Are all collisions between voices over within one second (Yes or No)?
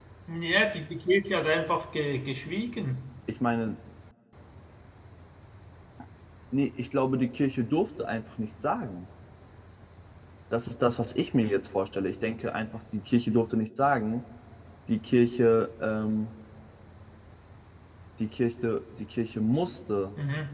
Yes